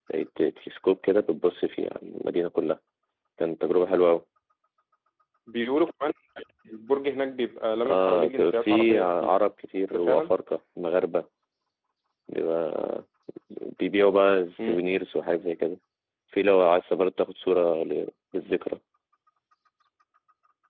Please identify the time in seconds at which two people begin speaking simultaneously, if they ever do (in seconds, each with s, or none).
7.9 s